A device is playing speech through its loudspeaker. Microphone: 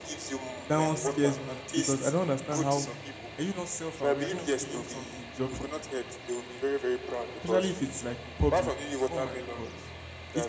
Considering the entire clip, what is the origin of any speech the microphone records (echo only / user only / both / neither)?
both